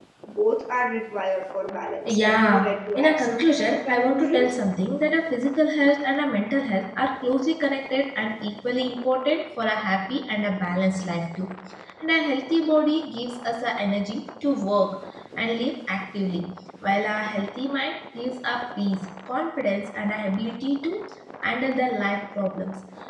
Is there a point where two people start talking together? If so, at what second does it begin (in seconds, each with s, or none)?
2.0 s